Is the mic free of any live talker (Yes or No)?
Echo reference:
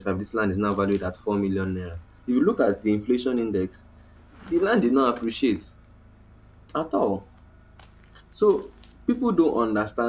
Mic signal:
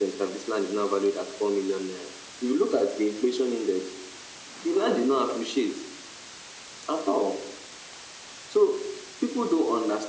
Yes